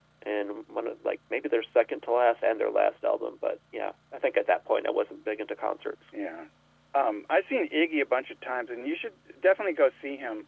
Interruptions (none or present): none